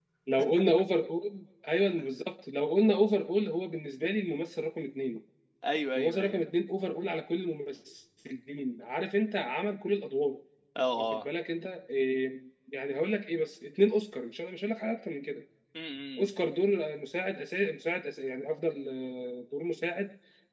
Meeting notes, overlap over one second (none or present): none